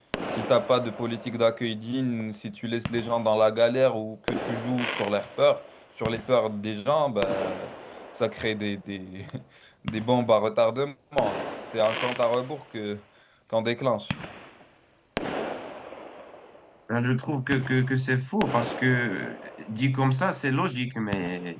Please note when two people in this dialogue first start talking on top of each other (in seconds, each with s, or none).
none